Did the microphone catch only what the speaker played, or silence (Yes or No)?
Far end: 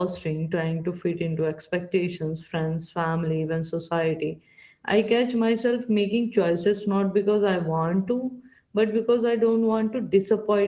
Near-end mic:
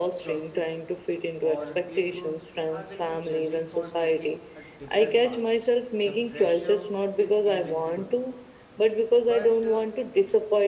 No